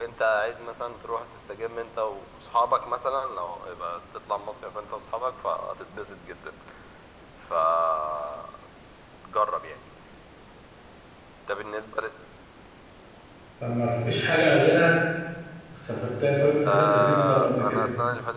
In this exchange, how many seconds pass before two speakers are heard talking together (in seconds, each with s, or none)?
16.6 s